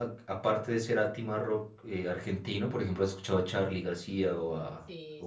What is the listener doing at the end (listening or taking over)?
taking over